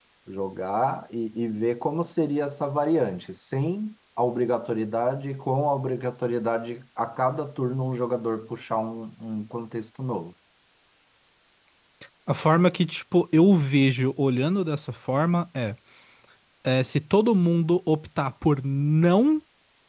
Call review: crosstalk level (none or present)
none